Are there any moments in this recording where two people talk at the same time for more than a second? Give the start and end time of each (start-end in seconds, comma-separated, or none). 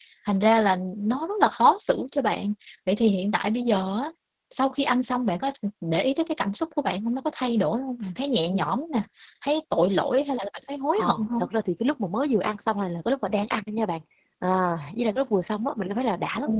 none